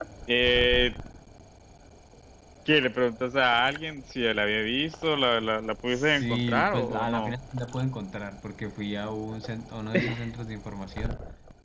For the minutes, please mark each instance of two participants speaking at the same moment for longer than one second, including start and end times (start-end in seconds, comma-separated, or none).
5.9-7.3